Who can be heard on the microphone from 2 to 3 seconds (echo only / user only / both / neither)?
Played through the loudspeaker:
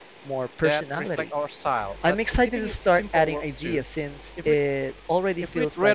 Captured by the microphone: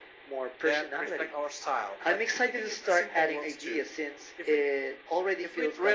echo only